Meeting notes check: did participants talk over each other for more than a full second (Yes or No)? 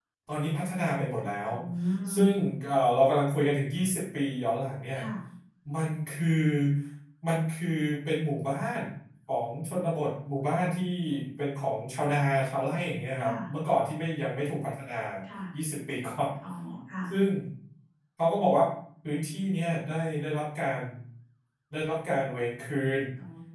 No